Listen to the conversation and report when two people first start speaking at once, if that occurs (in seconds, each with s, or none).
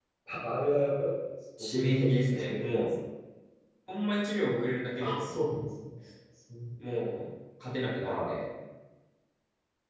1.6 s